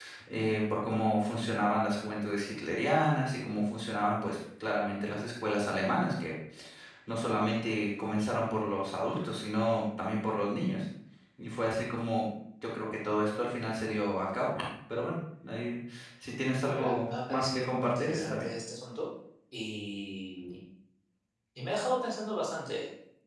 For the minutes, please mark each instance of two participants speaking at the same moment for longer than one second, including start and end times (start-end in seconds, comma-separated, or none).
16.7-18.5